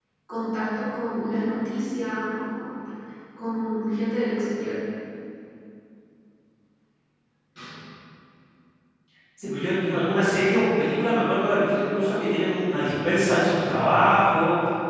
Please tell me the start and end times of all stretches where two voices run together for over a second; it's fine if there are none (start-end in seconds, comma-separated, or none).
none